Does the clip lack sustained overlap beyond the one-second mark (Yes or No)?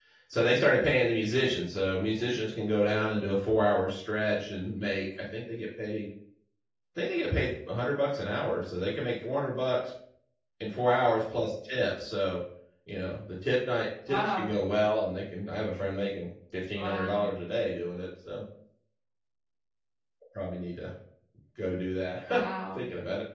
Yes